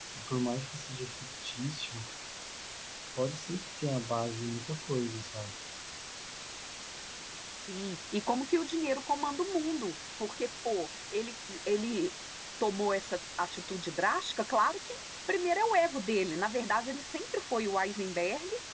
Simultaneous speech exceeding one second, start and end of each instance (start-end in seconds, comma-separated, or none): none